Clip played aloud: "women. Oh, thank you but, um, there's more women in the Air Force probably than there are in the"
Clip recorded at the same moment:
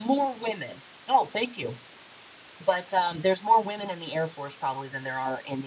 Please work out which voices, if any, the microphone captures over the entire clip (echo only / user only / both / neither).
echo only